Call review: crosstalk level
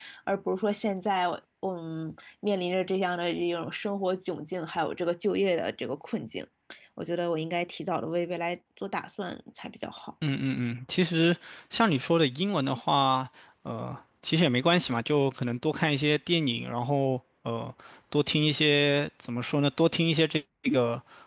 none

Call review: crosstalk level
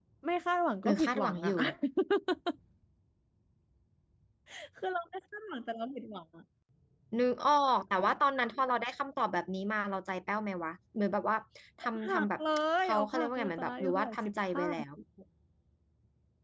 present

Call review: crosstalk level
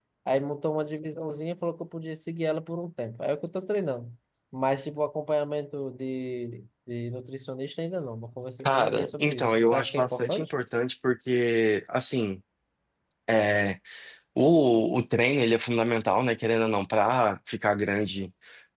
present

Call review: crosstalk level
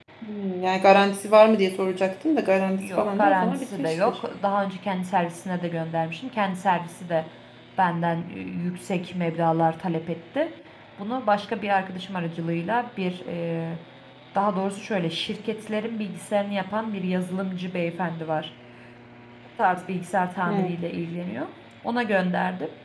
present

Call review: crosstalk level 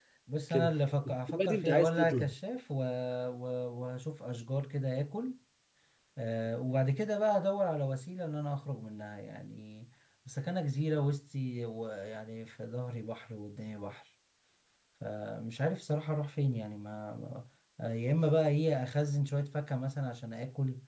present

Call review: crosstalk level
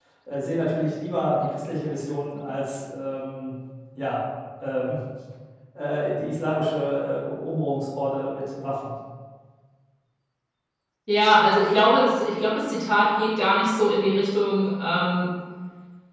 none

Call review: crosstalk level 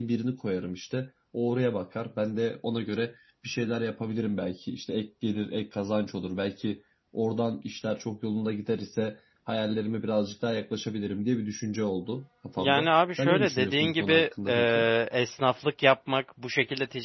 present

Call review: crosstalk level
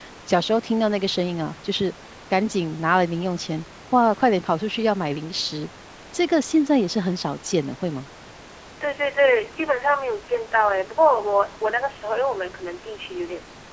none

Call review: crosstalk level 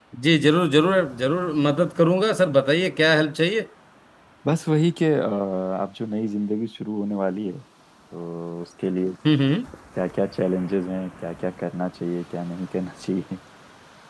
none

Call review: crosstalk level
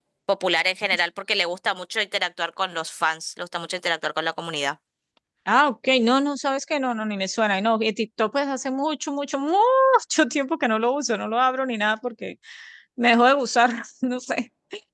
none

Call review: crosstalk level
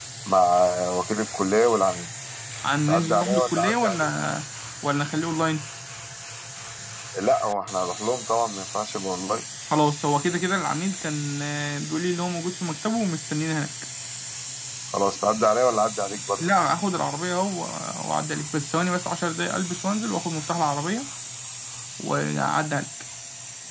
present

